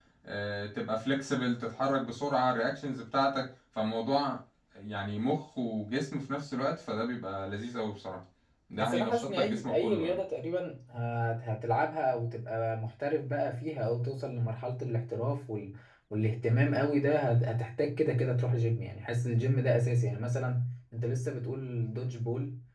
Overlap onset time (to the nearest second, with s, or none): 9 s